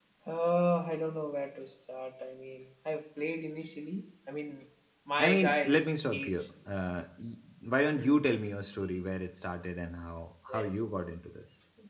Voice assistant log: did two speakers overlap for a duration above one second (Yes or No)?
Yes